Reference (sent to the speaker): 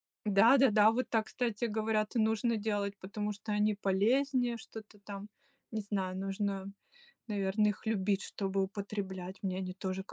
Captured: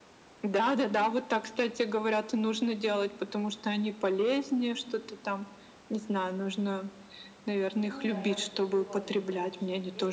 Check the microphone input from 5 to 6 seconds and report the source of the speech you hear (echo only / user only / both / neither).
echo only